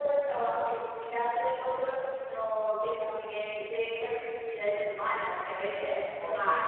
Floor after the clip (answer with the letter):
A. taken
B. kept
B